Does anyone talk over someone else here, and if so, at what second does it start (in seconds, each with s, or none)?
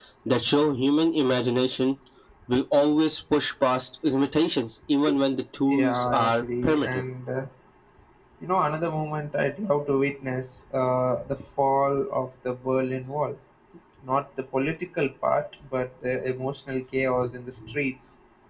5.7 s